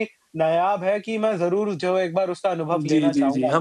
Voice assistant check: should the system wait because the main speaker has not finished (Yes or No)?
No